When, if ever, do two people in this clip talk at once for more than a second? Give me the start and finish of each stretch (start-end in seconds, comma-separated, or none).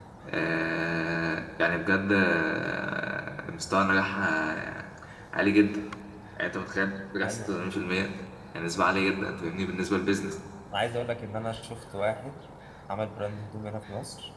none